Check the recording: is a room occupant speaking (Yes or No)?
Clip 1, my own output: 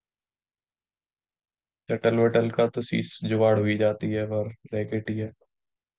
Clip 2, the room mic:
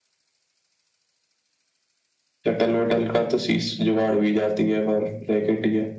No